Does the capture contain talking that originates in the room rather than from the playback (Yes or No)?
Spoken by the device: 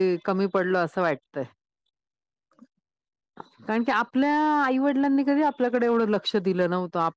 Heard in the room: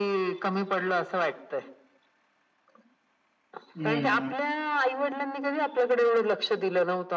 Yes